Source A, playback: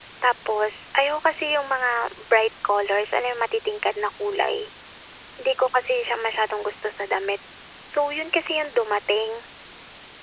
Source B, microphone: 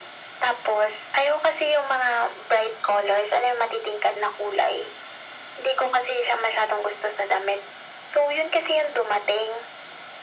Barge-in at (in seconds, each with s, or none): none